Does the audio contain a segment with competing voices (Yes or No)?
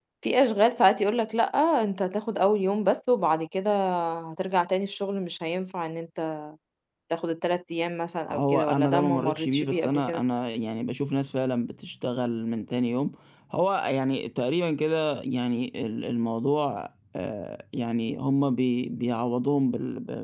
Yes